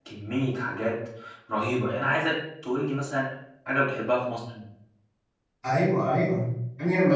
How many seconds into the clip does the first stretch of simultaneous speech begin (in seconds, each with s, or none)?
none